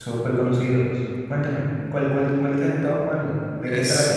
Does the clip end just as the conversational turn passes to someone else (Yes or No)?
Yes